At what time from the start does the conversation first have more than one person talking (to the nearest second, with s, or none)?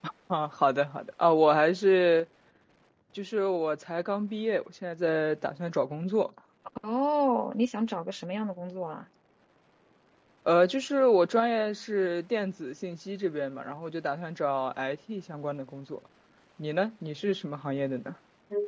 none